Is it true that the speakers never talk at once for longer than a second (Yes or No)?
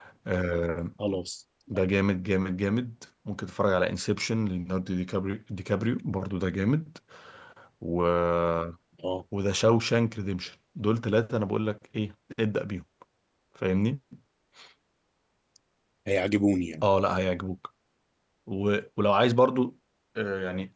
Yes